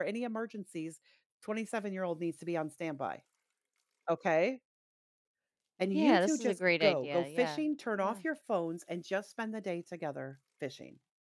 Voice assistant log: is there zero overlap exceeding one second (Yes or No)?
No